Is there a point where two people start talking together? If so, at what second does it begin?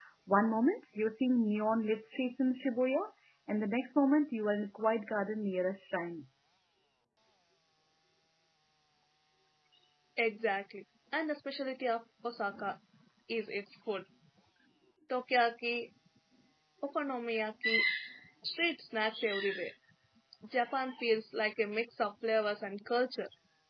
none

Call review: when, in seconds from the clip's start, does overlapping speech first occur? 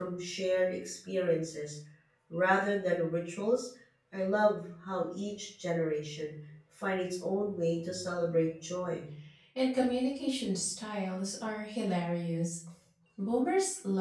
none

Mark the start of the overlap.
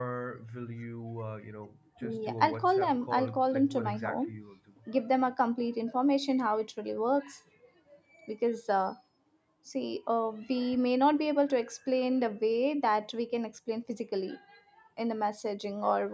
2.0 s

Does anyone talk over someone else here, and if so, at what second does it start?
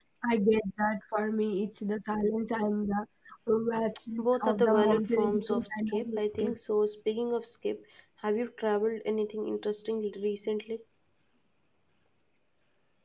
4.2 s

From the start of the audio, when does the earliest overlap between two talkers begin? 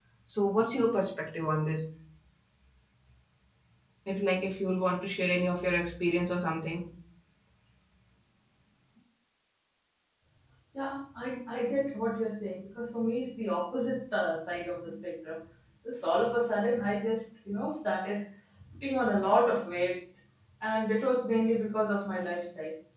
none

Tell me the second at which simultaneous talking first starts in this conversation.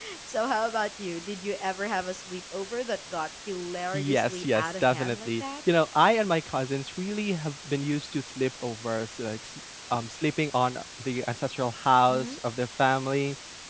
3.9 s

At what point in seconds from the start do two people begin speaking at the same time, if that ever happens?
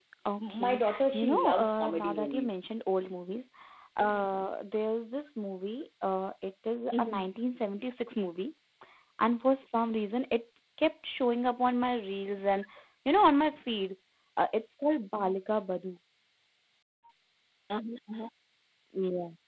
0.5 s

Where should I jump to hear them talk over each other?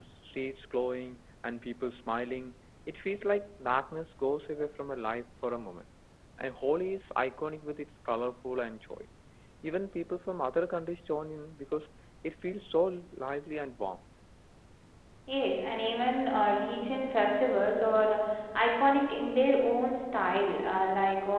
none

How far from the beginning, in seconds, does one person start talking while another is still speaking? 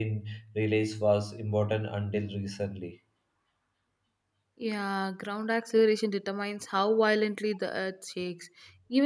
none

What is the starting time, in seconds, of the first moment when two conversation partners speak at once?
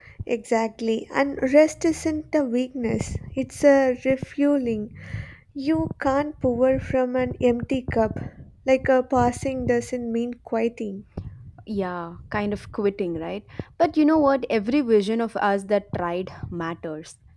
none

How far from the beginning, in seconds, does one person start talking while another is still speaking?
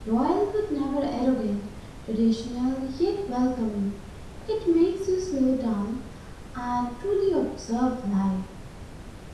none

